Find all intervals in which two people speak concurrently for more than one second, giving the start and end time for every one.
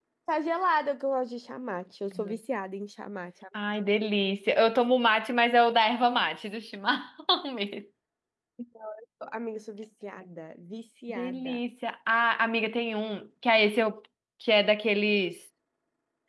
none

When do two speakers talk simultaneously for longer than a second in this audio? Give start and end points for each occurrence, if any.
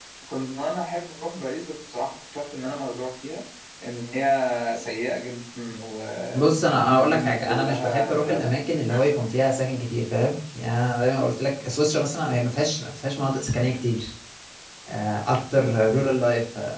6.3-8.5

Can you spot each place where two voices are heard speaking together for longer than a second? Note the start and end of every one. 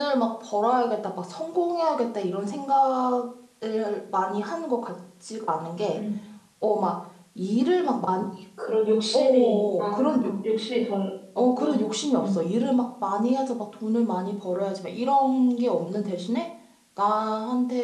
9.1-10.3

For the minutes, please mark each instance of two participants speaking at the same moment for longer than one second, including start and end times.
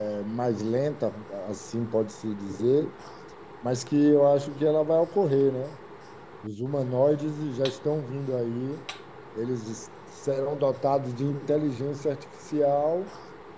none

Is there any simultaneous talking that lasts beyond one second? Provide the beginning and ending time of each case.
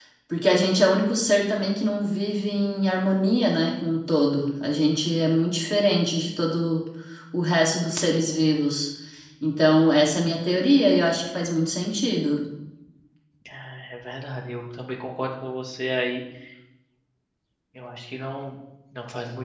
none

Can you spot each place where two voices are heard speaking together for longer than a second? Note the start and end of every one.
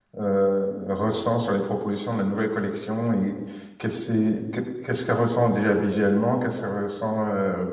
none

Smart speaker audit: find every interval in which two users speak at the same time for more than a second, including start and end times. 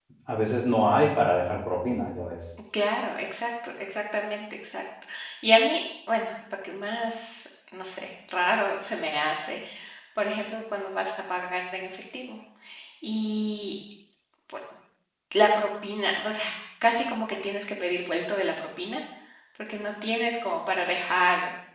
none

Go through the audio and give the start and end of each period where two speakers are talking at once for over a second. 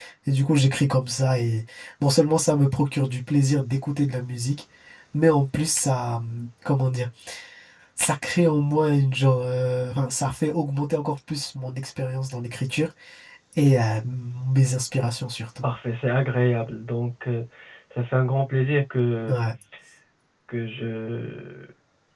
none

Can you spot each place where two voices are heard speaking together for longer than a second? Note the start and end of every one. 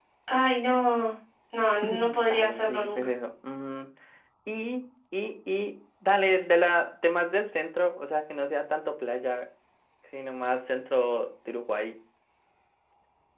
1.8-3.1

